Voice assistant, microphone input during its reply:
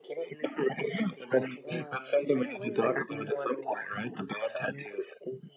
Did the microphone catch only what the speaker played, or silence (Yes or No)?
No